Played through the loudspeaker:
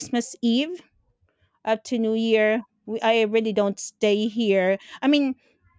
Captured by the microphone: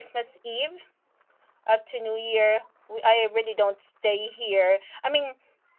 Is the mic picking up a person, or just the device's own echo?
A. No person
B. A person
A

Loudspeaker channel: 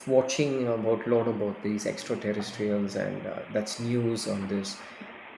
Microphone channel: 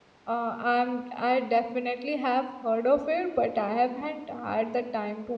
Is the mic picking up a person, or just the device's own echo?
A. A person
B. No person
A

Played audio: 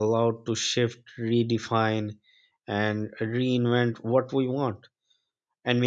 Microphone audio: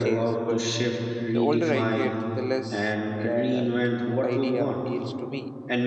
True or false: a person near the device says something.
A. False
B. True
B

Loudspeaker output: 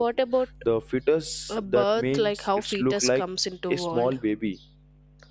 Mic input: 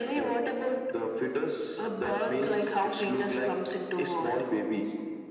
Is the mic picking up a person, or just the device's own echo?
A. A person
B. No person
B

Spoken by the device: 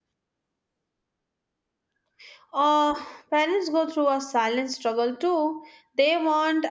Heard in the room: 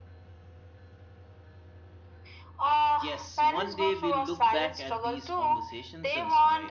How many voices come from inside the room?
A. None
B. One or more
B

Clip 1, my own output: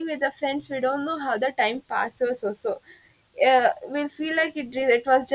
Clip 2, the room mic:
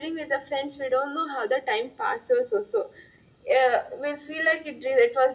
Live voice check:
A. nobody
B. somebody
A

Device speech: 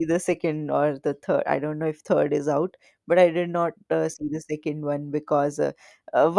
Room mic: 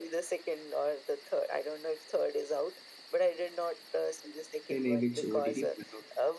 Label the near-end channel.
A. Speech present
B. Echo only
A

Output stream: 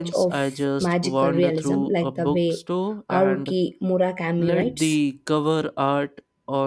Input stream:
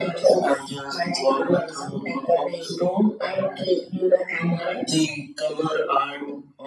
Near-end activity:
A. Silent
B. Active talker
A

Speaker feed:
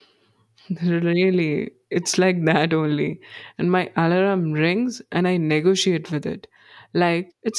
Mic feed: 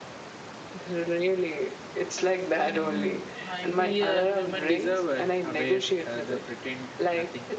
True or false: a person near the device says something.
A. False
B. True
B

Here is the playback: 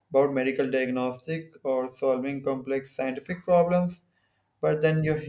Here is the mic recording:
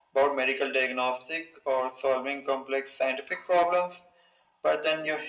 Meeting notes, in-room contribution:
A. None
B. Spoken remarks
A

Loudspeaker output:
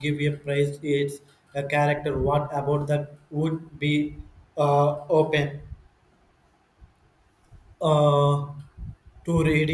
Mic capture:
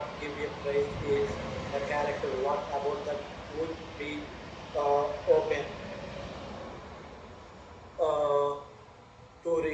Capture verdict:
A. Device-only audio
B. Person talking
A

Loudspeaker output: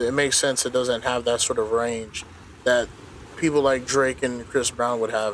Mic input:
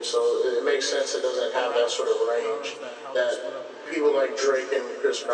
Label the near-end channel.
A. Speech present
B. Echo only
A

